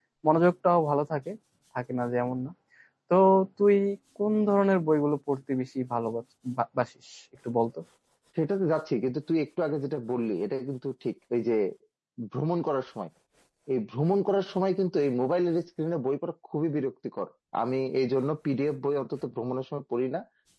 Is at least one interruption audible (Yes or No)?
No